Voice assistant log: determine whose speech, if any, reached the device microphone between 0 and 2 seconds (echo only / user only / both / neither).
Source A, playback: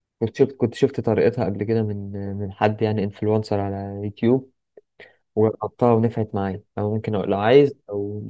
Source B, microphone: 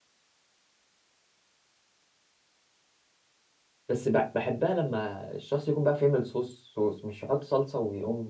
neither